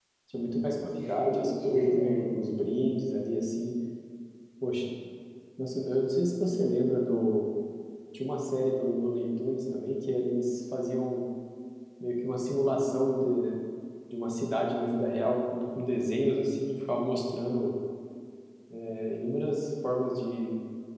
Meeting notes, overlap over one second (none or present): present